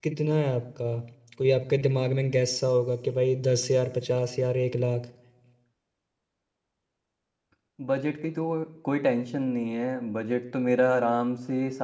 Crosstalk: none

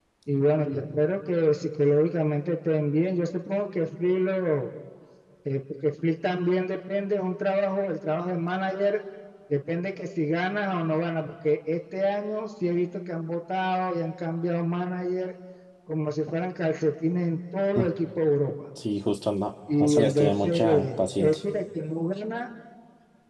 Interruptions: present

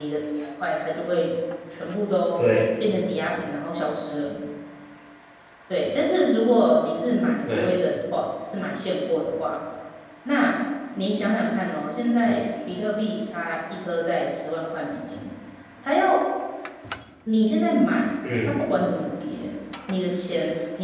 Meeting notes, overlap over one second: none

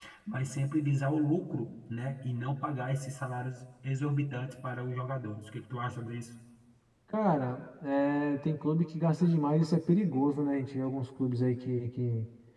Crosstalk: none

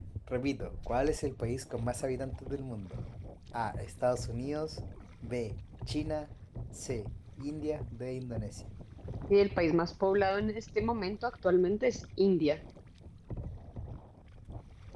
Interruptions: none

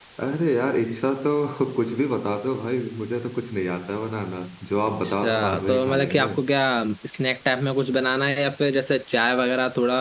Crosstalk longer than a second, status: present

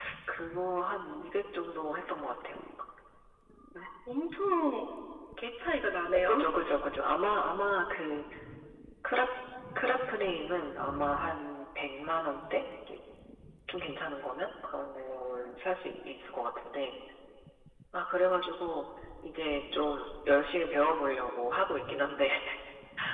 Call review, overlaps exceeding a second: none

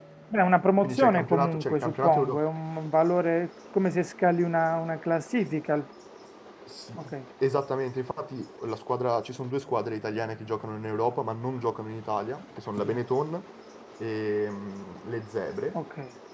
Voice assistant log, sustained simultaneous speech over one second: present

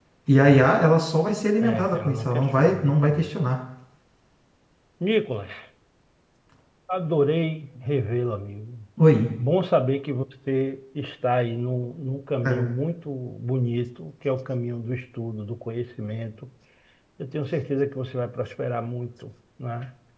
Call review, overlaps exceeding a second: present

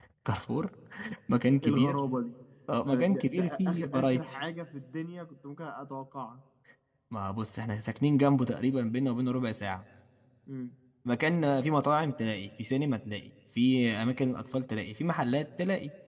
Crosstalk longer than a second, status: present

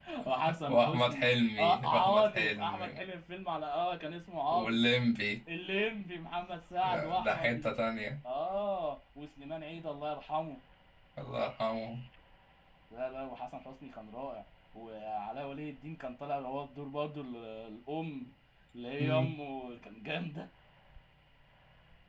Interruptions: present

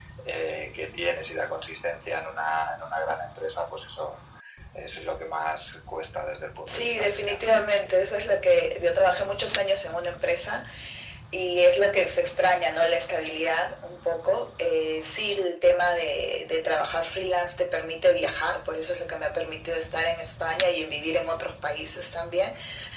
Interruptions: present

